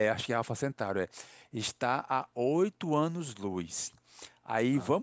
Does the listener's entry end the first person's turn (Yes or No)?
No